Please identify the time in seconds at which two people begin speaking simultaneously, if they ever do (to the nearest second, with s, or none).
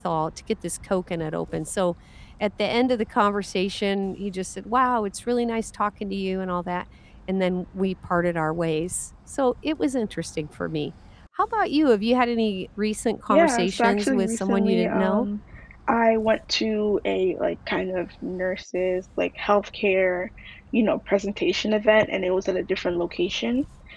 13 s